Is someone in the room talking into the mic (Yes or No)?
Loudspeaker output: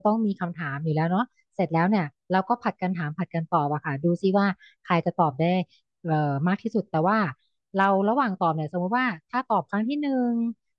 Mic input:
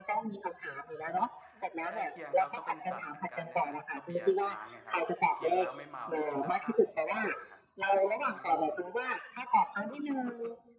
Yes